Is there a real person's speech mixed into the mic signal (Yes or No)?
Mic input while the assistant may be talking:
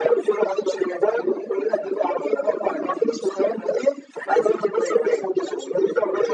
No